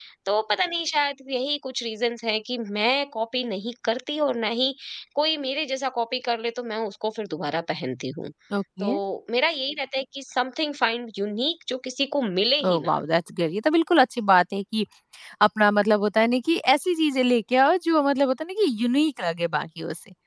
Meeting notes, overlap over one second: none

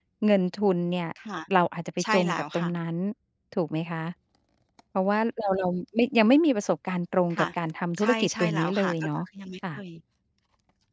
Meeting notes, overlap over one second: present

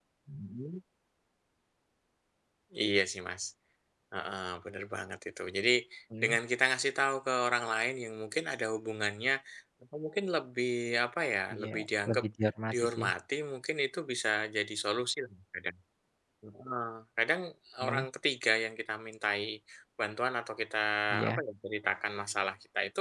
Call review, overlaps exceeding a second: none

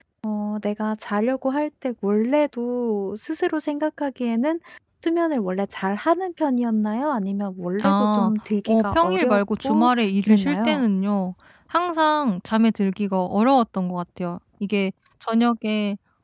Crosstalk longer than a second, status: present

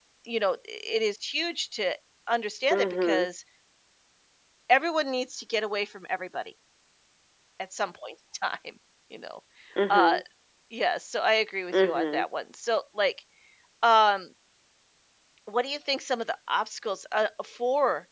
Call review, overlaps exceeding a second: none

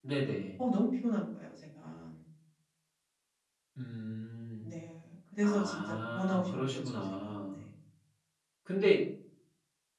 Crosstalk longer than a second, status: present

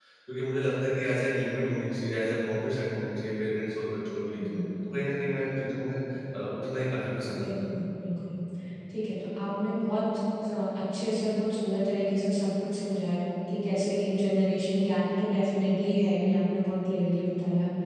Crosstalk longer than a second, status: none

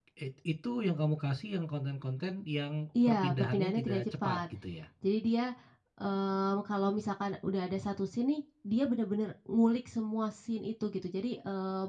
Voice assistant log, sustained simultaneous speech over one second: present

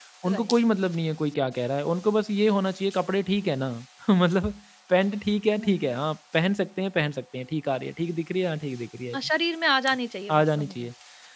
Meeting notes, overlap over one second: none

